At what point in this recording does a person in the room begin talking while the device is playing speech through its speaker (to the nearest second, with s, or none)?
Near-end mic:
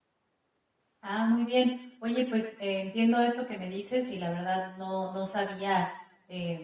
1 s